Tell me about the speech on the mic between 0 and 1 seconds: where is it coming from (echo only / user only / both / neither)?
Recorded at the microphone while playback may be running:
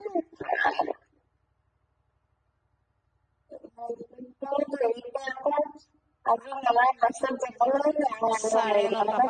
echo only